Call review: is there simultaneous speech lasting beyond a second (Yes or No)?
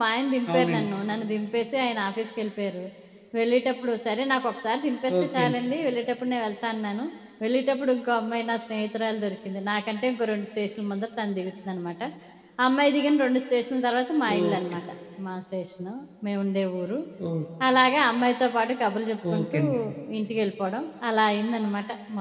No